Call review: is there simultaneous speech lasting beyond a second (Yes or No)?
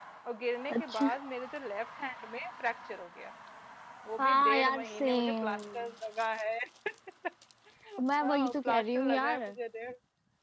Yes